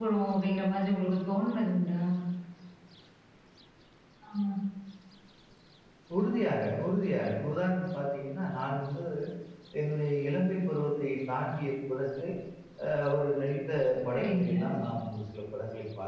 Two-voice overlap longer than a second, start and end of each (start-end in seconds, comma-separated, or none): none